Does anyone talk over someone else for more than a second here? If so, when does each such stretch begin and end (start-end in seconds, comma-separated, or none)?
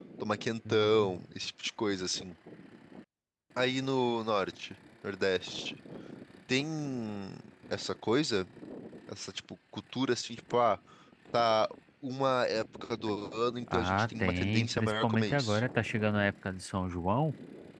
13.7-15.6